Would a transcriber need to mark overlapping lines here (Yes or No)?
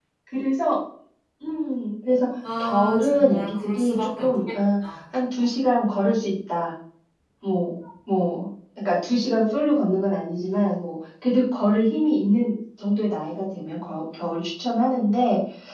Yes